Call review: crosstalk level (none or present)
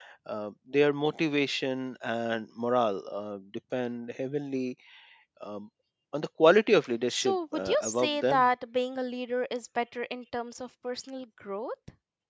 present